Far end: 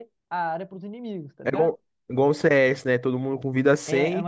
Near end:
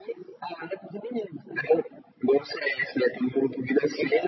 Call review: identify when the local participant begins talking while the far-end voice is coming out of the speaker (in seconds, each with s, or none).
none